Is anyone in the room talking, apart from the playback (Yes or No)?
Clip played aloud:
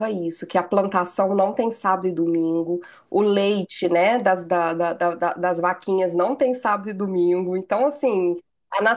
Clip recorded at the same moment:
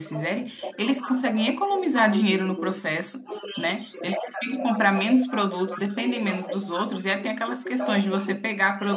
Yes